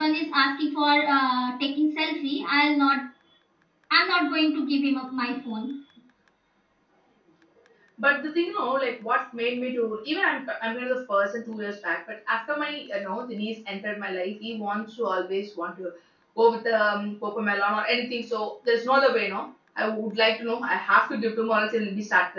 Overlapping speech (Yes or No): No